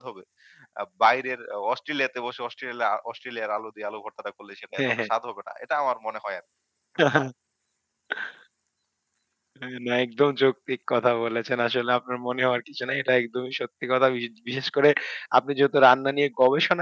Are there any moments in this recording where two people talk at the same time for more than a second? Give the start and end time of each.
none

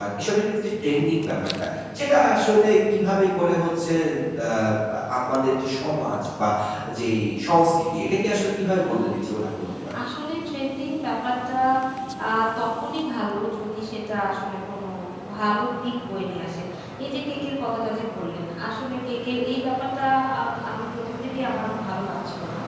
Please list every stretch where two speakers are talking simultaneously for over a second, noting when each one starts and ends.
none

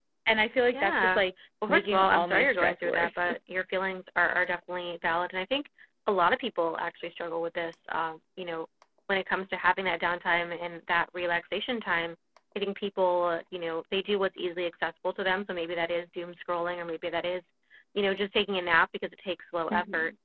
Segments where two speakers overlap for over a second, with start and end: 1.7-3.2

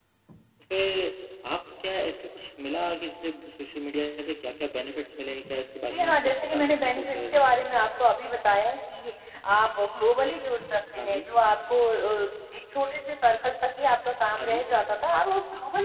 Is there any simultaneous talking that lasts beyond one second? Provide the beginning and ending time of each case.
5.9-7.4

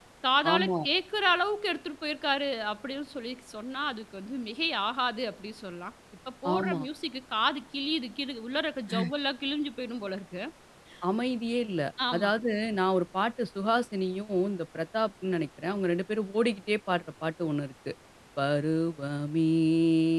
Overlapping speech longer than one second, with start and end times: none

